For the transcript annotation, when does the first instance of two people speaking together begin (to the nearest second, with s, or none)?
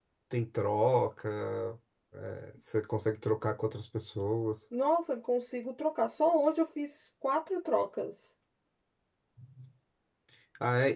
none